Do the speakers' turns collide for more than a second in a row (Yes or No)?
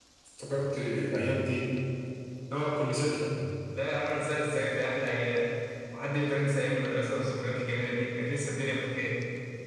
No